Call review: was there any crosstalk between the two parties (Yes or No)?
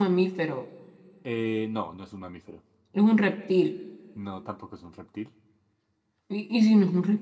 No